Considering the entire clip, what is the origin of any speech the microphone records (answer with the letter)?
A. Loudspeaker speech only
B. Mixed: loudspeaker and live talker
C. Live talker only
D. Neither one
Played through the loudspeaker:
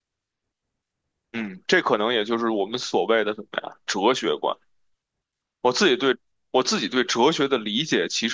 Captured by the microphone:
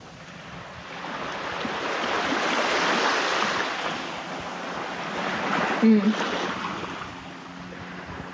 C